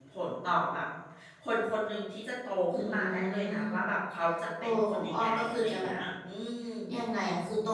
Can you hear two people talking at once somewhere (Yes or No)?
Yes